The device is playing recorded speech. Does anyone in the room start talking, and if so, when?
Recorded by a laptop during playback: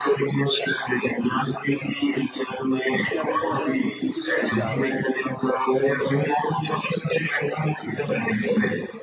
3.0 s

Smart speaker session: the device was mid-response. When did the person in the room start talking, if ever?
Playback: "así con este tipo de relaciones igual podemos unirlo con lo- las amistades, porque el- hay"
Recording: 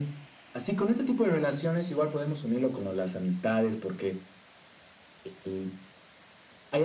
none

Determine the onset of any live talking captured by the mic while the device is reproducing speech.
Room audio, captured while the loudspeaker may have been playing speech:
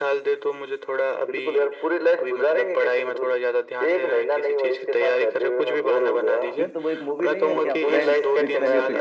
6.6 s

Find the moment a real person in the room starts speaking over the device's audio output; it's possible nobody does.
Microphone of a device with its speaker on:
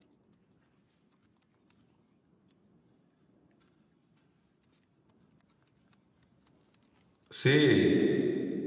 7.3 s

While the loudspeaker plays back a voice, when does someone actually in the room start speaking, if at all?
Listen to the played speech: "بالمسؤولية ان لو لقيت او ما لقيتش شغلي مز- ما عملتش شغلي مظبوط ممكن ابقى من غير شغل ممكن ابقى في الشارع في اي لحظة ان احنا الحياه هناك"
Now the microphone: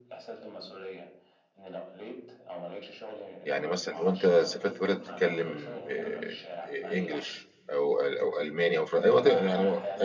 3.4 s

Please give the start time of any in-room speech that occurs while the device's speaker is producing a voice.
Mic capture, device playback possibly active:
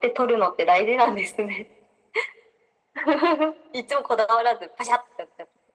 none

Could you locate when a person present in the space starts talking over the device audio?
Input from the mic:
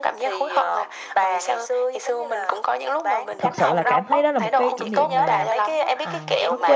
3.4 s

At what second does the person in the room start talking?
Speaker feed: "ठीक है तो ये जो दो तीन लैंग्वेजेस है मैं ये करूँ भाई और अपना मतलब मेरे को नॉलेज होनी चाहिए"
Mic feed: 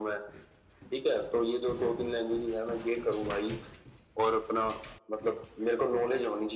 none

